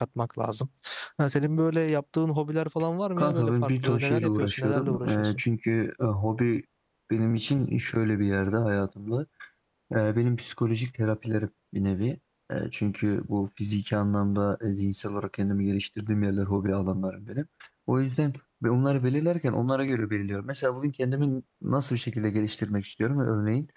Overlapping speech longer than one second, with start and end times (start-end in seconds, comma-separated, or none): 3.2-5.4